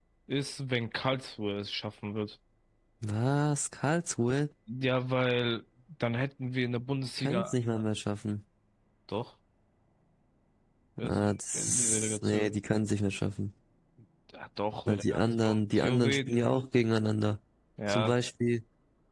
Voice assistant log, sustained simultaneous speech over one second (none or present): present